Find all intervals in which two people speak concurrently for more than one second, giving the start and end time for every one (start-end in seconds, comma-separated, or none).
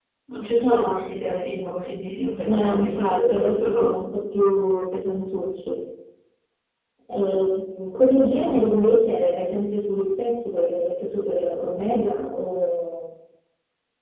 2.4-3.9